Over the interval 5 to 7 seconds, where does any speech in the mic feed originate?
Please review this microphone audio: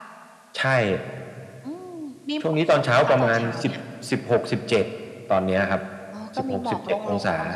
echo only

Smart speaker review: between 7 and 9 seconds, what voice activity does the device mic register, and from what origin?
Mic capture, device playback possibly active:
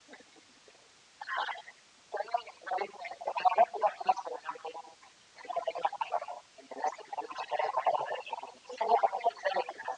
echo only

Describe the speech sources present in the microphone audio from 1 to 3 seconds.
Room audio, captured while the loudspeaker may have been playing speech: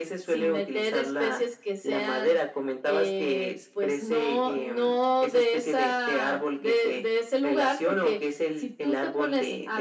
echo only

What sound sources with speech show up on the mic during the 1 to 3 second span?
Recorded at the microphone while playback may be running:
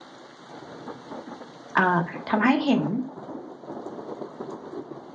user only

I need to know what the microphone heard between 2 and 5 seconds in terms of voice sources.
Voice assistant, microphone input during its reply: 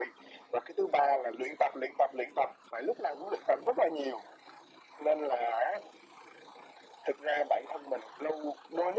echo only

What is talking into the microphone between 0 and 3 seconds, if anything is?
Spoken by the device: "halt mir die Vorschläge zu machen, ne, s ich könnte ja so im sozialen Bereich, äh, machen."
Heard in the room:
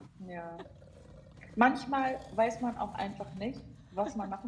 user only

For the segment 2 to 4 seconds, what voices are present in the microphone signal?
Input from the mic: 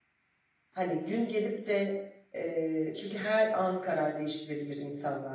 user only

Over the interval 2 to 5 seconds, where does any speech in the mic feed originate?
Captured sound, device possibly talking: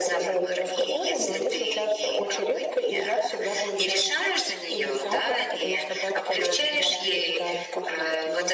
echo only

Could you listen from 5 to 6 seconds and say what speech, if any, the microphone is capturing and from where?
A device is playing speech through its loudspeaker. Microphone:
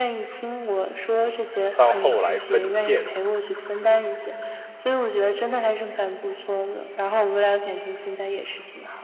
echo only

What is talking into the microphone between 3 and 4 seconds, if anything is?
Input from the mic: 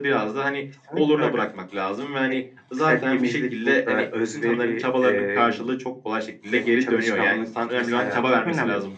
echo only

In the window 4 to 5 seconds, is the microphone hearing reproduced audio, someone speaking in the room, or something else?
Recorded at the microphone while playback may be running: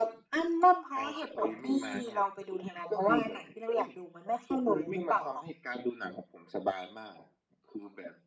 echo only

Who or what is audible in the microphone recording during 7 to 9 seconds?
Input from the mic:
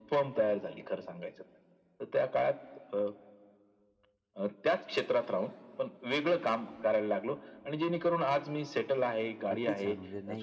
echo only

